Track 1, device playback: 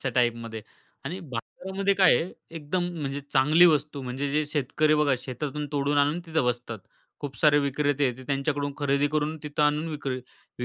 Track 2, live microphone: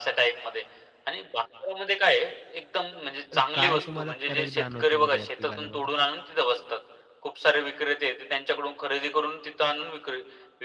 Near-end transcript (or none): तर काय तुम्हाला फरक जाणवतो बरं या तिघांमध्ये?